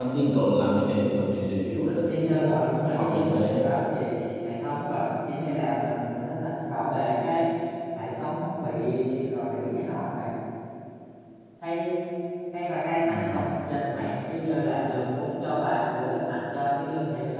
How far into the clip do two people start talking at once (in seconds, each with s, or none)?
1.8 s